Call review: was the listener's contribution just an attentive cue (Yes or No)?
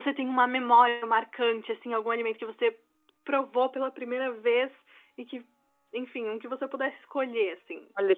No